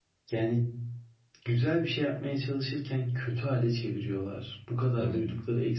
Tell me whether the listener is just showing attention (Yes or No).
Yes